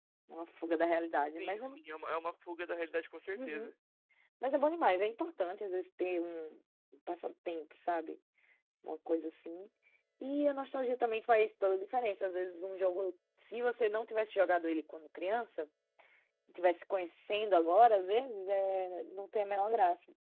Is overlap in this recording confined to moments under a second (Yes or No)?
Yes